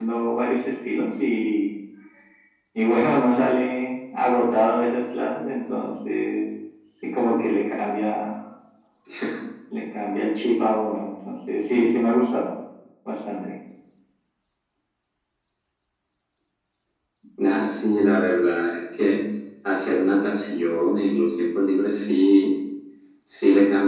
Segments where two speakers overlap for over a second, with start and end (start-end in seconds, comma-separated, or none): none